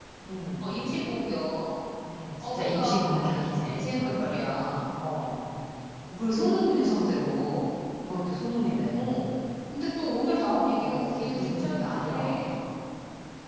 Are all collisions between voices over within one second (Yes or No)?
No